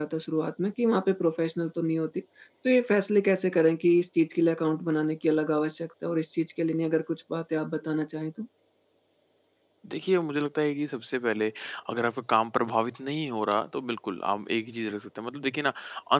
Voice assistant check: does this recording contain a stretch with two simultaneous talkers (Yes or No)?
No